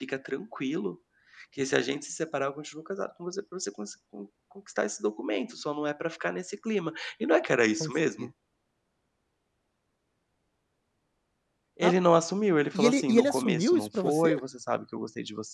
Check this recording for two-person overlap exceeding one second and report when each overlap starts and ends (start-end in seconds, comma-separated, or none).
12.7-14.3